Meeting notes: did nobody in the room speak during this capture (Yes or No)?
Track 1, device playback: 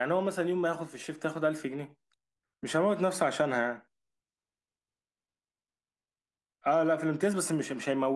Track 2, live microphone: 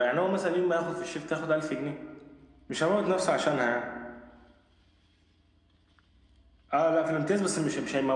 Yes